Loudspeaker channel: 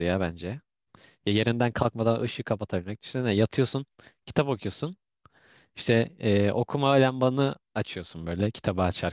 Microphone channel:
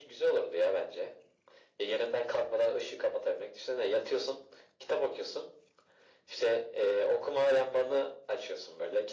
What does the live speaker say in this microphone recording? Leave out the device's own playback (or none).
none